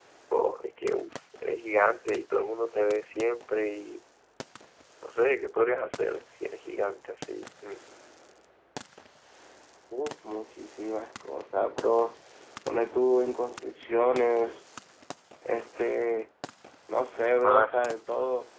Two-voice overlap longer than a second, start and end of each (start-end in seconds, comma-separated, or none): none